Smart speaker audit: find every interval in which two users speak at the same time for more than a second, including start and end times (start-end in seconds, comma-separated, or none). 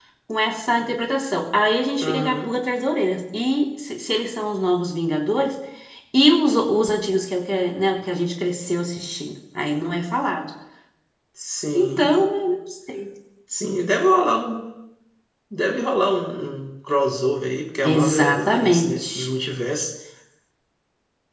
17.8-19.3